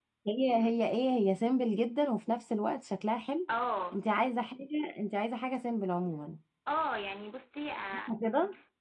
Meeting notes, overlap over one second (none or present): none